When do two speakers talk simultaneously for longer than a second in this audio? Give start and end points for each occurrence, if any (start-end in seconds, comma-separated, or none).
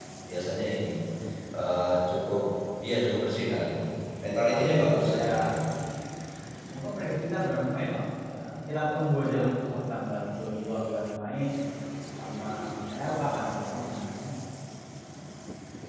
3.8-5.3